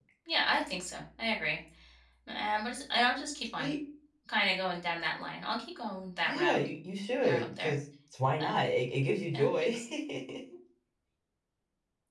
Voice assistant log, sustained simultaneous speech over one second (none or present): none